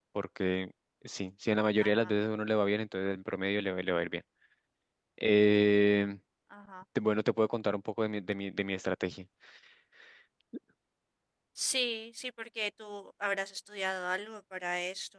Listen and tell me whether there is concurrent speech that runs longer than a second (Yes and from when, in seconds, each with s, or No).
No